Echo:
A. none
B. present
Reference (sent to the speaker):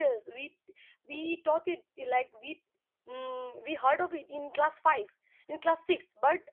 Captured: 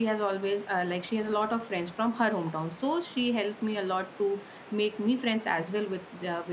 A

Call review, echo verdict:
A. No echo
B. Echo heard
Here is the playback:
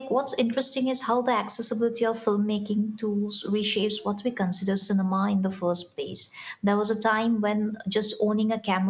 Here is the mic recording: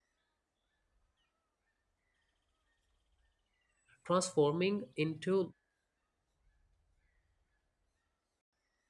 A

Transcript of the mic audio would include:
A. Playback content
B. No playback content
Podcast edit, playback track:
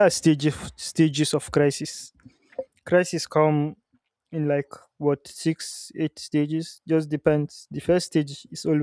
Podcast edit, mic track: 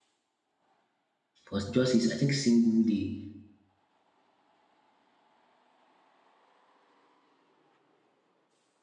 B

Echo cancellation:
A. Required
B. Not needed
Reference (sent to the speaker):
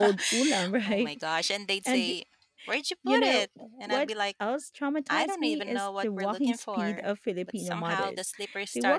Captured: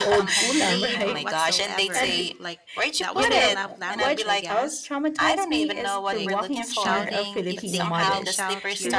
A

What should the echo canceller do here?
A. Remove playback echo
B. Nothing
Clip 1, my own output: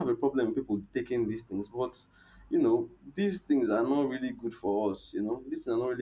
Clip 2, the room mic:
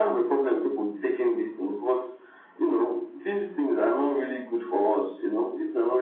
A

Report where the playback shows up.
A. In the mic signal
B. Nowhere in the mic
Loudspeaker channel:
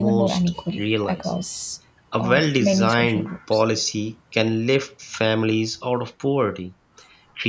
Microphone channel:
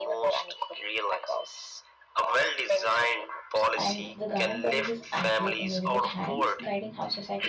A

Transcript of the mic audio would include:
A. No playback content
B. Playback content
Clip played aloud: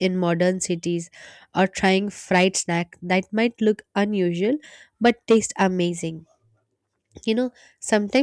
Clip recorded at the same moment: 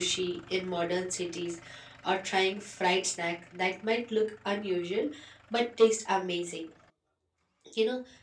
B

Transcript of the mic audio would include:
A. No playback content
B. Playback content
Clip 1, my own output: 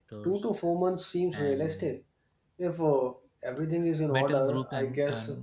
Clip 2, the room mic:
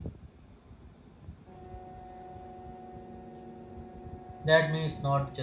A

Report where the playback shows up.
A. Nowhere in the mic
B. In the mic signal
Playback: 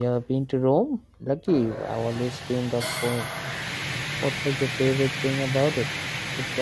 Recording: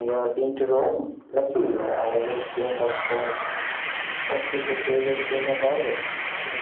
B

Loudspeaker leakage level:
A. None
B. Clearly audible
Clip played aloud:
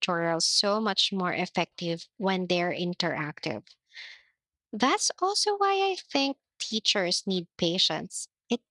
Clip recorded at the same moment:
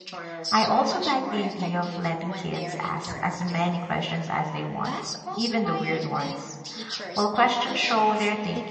B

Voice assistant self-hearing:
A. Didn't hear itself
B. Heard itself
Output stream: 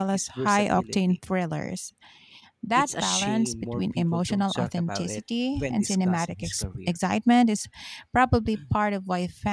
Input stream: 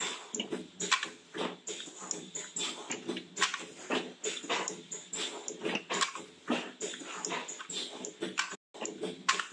A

